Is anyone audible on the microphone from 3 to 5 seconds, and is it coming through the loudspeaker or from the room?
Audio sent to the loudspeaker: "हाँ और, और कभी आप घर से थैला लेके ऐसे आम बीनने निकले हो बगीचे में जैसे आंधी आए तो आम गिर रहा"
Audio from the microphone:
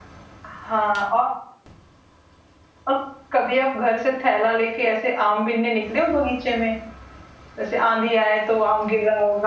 echo only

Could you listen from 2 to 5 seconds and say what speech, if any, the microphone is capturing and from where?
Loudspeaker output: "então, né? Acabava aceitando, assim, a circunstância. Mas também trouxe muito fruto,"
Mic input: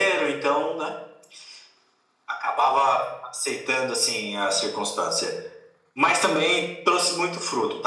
echo only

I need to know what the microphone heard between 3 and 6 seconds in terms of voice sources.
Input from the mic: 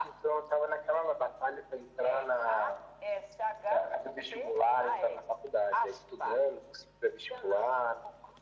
echo only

